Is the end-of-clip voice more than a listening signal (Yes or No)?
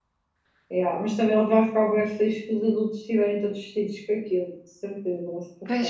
Yes